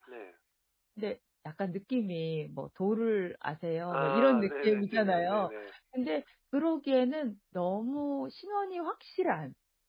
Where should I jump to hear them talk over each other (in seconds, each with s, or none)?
3.9 s